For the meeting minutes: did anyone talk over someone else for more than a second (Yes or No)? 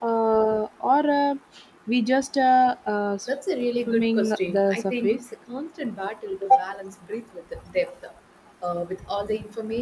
Yes